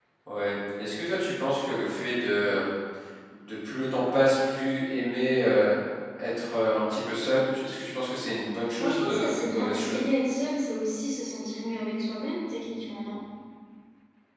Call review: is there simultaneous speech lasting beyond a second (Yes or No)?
Yes